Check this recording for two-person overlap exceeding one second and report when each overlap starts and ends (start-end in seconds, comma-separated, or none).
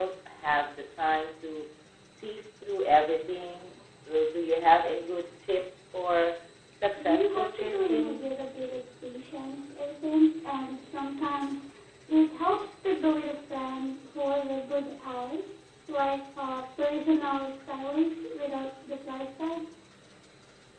7.0-8.2